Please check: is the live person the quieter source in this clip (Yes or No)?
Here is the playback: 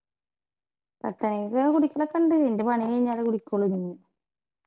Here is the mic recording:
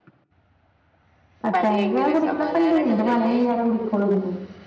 Yes